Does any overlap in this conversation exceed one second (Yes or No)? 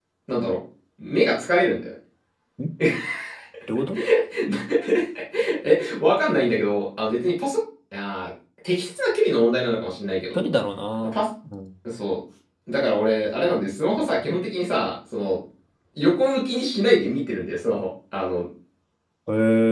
No